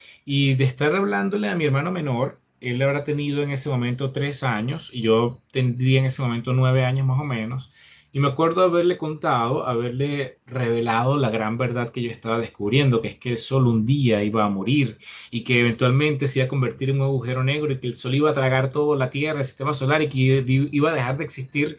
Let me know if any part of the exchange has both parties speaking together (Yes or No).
No